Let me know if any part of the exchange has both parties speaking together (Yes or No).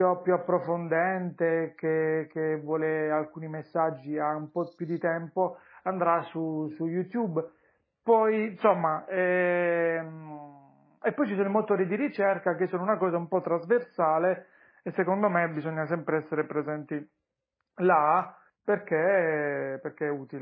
No